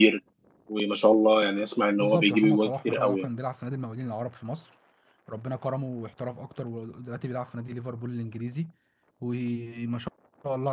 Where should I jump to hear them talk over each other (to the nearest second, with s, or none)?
2 s